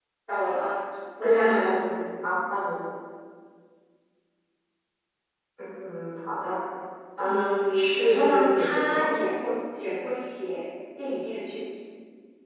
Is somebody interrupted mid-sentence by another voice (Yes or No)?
Yes